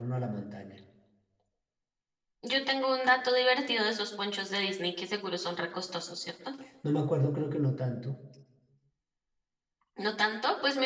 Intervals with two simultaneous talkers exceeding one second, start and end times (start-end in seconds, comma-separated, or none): none